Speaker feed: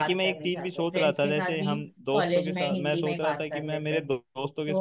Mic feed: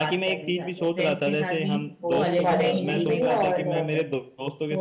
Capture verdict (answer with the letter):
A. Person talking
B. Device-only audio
A